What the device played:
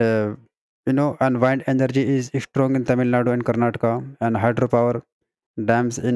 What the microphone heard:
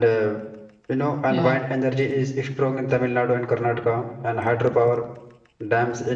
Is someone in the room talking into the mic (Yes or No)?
Yes